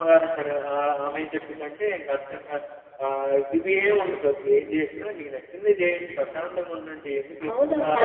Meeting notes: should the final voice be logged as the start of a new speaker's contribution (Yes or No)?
Yes